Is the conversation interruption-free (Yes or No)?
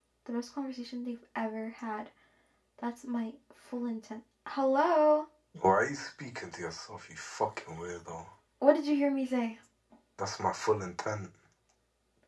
Yes